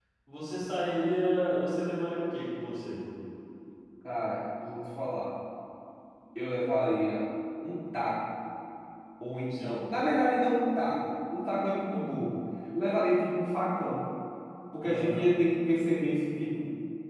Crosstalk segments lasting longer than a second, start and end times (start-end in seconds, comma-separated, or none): none